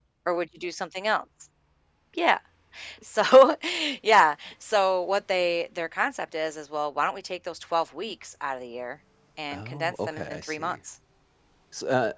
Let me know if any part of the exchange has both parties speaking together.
Yes, from 9.5 s

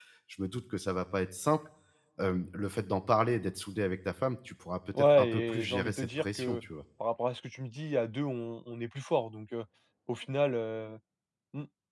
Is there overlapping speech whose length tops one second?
Yes, from 5.0 s

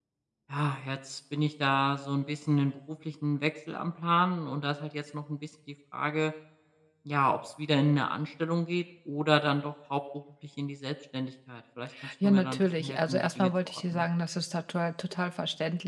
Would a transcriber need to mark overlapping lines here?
Yes, from 12.2 s

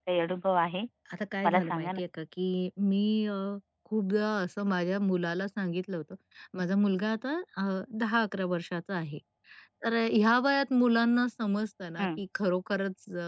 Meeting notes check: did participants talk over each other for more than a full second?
No

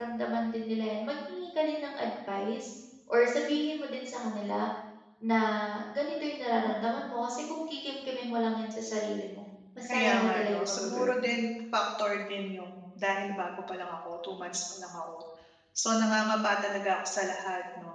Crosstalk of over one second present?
Yes, from 9.8 s

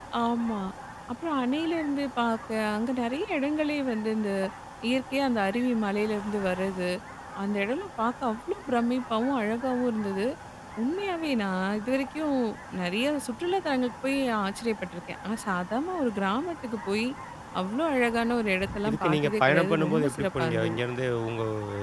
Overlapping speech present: Yes, from 18.8 s

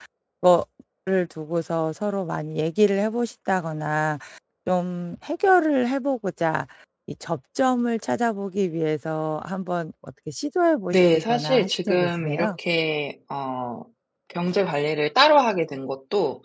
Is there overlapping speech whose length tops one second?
Yes, from 10.9 s

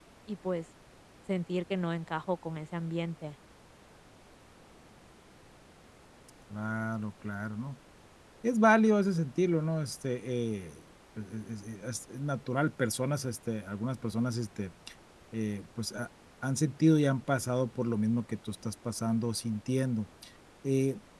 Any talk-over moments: No

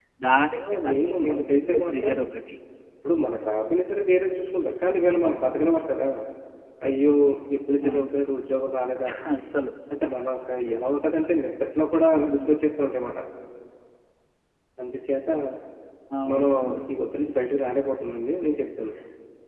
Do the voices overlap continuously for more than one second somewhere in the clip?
Yes, from 0.7 s

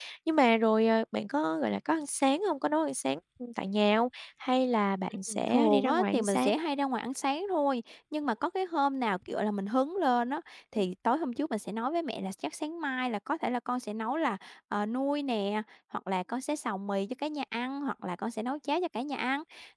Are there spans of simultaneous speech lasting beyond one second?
Yes, from 5.3 s

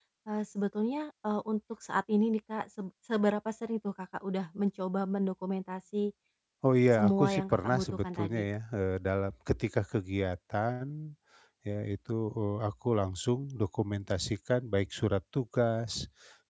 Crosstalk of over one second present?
Yes, from 6.9 s

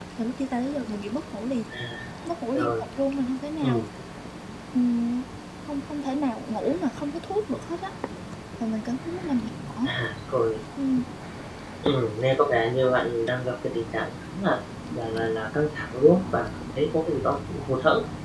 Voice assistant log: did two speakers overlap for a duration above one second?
No

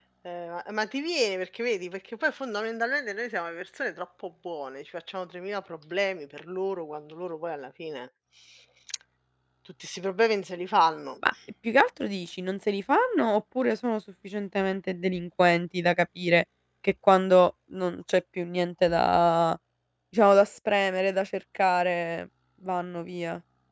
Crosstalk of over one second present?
No

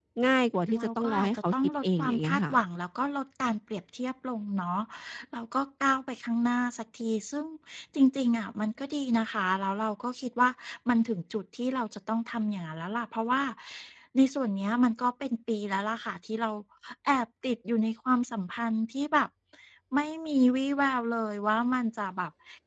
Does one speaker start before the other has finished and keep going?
Yes, from 0.8 s

